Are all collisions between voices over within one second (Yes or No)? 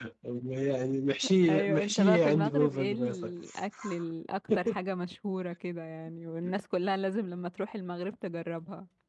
No